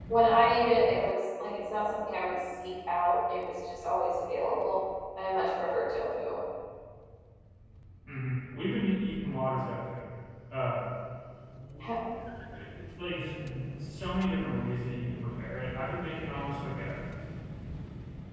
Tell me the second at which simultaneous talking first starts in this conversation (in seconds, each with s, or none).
none